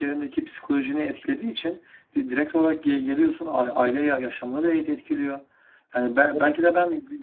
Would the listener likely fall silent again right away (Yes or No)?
Yes